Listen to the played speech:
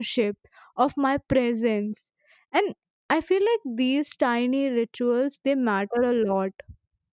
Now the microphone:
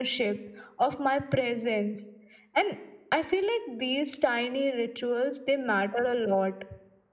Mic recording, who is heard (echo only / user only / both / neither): echo only